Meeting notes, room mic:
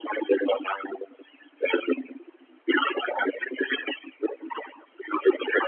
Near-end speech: none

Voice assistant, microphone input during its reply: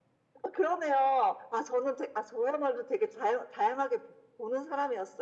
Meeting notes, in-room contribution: none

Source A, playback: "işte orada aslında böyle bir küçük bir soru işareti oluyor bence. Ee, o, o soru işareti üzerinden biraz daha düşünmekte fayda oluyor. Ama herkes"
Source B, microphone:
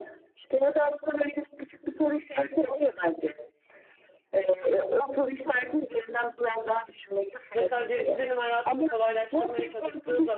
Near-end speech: present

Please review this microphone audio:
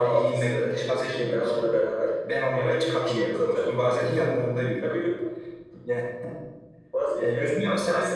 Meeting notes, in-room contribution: none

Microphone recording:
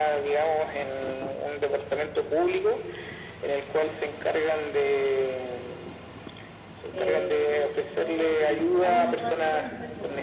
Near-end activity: present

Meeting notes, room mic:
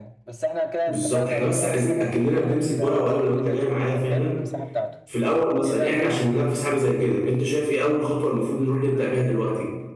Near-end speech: present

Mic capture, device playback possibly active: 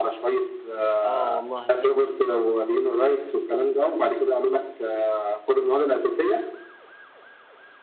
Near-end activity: present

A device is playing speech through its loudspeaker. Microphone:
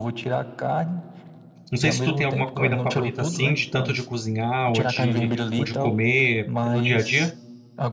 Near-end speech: present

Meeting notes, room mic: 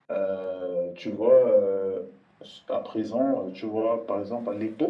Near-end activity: none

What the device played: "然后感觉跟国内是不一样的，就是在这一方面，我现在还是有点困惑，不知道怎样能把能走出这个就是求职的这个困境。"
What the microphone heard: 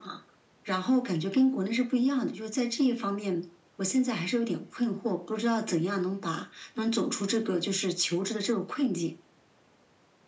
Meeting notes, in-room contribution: none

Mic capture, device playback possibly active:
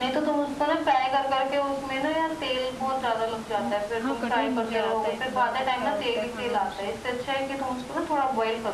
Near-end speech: present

